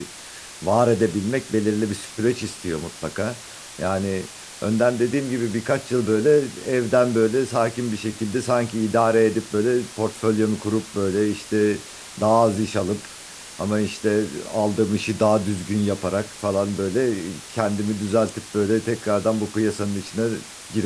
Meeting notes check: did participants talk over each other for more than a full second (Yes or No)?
No